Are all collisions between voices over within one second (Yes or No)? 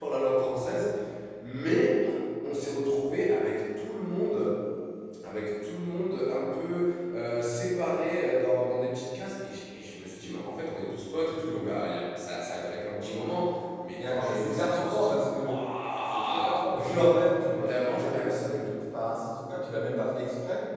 No